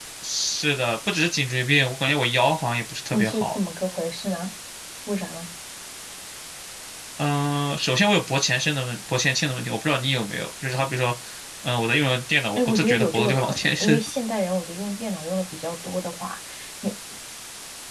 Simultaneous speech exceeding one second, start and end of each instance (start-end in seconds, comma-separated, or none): 12.6-14.0